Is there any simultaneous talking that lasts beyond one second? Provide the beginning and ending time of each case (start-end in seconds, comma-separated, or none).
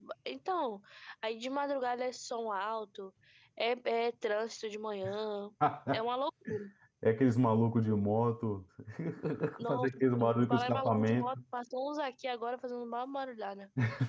9.7-11.3